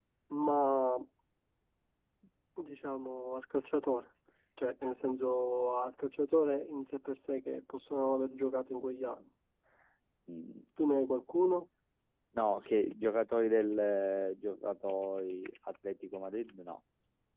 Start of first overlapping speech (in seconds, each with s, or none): none